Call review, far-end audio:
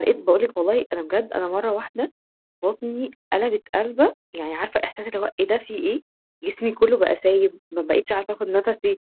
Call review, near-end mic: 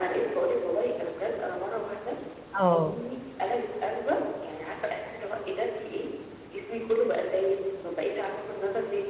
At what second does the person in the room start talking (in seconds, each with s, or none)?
2.6 s